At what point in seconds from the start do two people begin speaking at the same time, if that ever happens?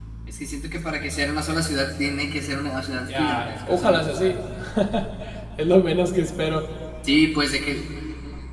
3.1 s

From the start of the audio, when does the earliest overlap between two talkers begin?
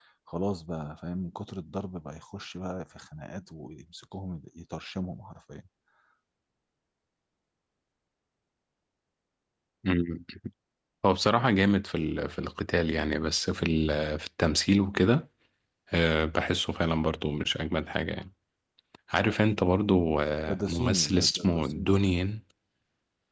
20.5 s

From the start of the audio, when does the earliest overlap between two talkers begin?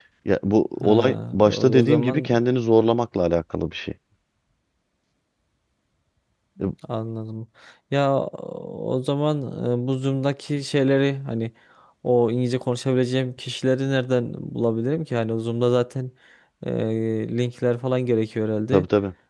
0.8 s

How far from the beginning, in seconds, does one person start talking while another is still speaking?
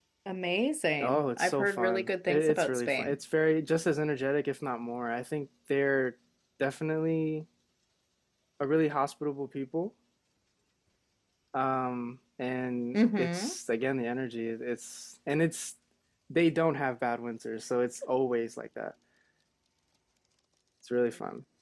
1.0 s

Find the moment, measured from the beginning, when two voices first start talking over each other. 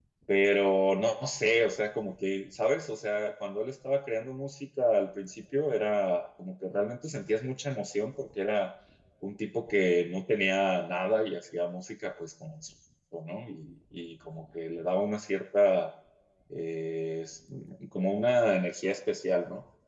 none

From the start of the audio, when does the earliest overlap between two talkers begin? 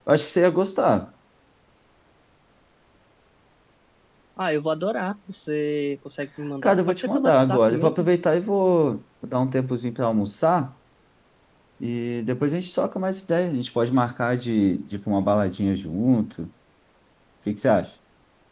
6.6 s

